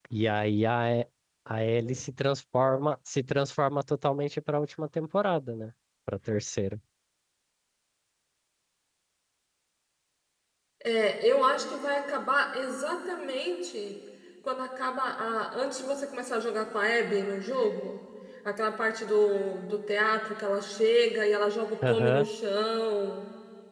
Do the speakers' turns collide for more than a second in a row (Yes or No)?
No